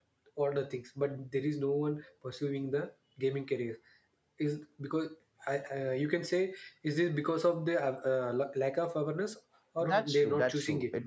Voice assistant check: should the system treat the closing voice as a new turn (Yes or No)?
Yes